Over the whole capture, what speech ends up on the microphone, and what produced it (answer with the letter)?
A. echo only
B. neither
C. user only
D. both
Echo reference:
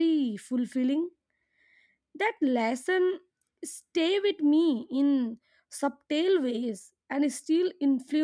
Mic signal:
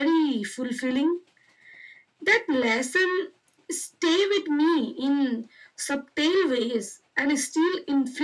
A